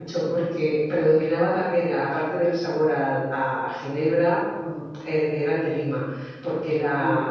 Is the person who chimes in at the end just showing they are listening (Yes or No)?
Yes